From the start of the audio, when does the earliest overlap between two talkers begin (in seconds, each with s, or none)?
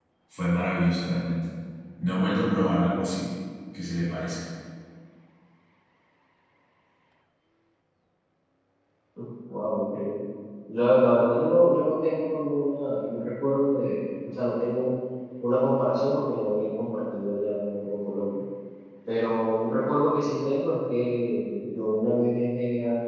none